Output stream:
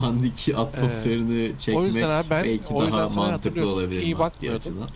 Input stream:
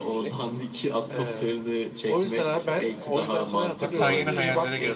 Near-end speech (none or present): present